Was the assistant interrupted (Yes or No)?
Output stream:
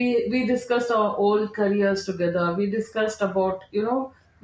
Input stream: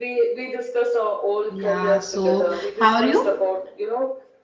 Yes